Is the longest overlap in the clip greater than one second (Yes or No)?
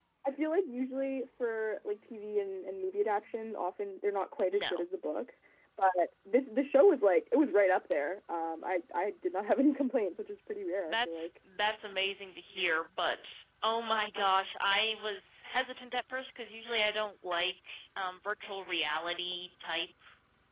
No